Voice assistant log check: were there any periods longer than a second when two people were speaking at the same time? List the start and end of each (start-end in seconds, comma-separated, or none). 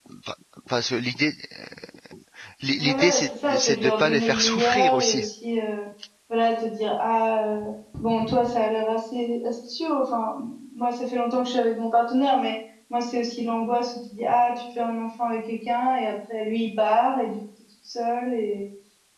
2.8-5.2